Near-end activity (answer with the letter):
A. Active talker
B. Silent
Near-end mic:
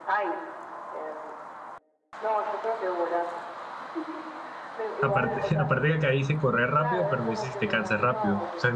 A